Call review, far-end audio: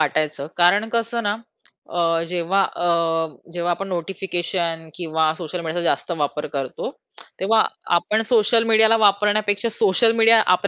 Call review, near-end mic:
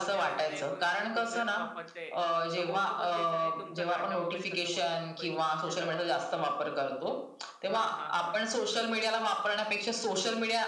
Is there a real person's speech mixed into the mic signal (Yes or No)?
Yes